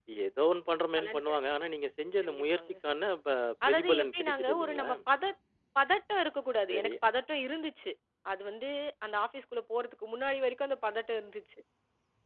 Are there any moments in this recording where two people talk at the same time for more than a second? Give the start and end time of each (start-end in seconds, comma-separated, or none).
3.7-4.9